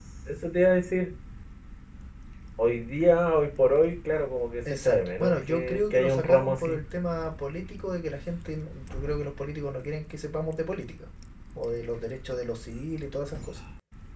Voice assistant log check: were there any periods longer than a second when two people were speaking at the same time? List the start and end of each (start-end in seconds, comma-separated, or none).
4.7-6.8